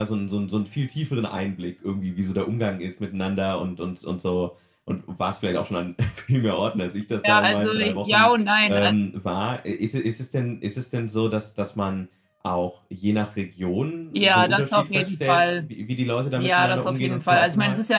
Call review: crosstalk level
present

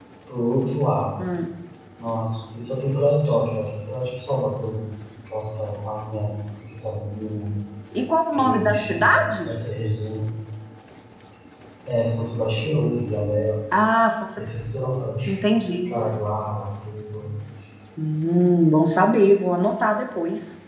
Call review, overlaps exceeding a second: present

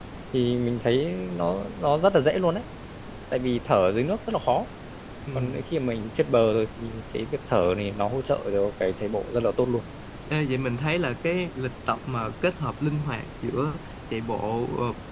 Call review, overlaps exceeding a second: none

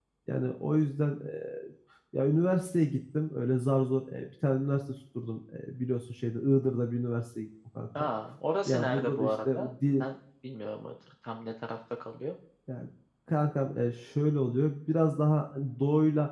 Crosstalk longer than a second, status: present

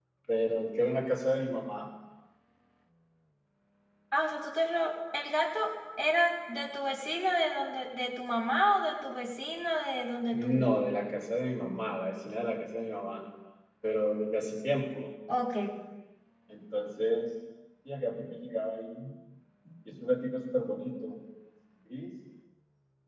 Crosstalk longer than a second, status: none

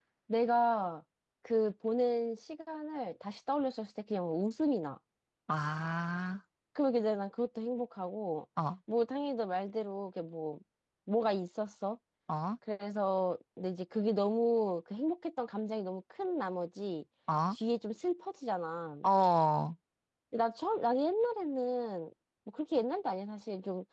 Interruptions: none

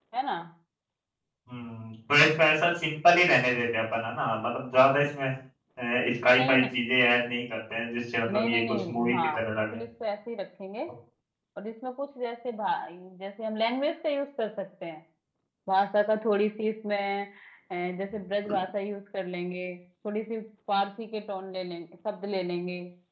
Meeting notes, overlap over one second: present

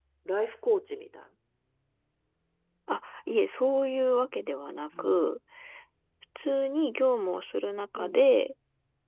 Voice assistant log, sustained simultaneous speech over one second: none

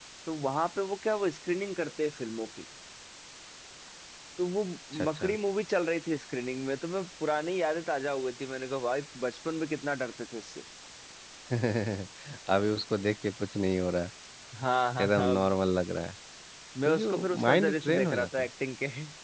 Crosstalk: present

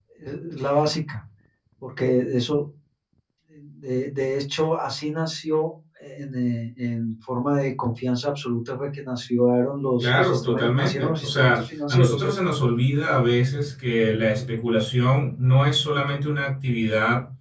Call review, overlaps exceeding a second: present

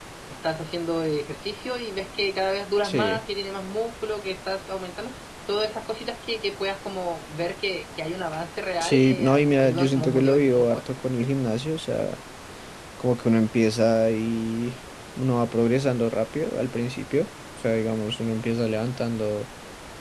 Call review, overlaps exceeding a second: present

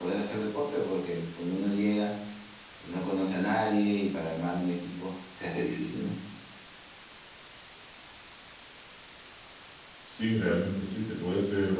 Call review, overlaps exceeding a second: none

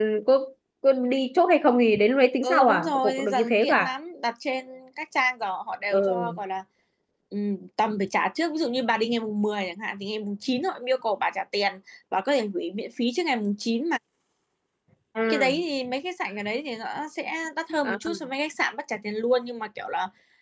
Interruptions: present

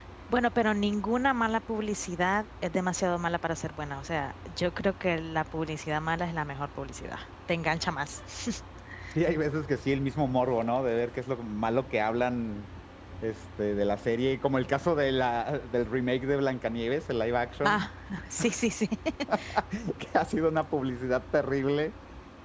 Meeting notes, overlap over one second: none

